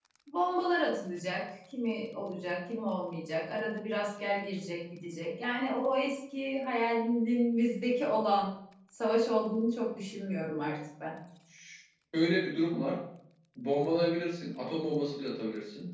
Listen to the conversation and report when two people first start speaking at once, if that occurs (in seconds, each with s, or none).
none